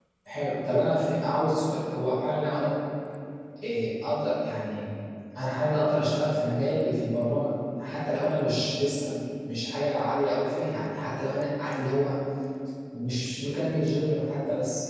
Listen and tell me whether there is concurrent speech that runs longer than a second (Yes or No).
No